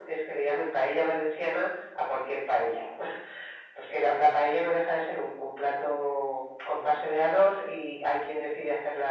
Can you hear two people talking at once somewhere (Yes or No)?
No